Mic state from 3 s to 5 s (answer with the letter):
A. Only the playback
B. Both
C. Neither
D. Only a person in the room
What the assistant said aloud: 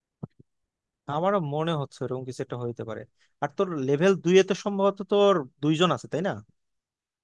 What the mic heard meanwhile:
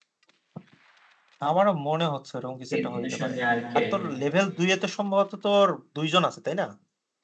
B